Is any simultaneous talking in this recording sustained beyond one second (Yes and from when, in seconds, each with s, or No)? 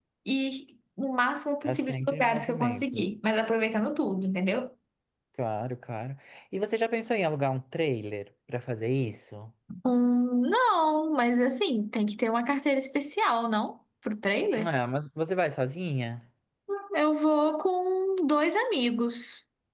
Yes, from 1.6 s